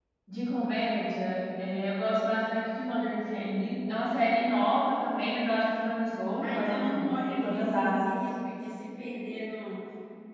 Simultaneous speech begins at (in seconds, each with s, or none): 6.4 s